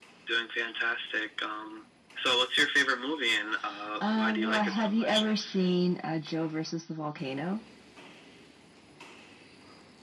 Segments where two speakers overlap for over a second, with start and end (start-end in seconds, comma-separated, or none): 4.0-5.2